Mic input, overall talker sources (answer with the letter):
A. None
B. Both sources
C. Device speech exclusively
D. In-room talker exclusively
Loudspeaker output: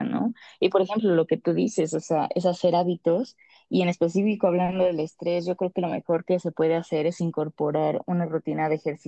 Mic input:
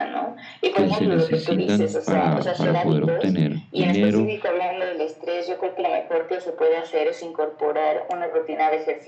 B